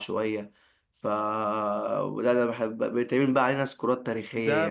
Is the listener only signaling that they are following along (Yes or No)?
No